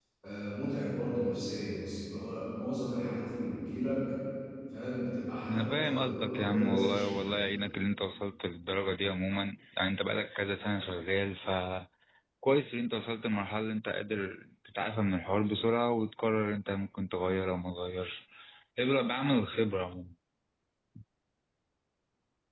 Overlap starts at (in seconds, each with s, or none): 5.5 s